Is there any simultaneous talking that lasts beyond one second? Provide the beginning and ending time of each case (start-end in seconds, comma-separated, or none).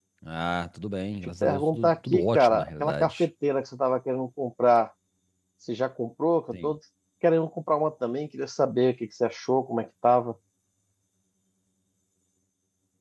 1.4-3.2